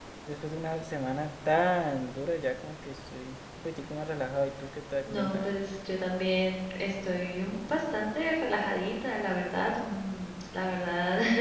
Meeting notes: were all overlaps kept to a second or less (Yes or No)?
Yes